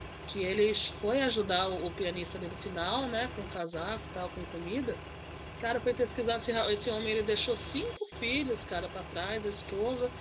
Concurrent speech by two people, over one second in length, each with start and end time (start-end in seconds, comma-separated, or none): none